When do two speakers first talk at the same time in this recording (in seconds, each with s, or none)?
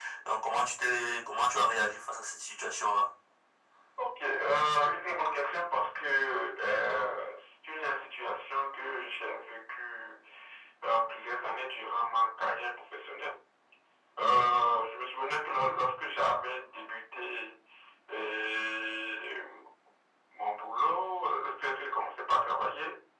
none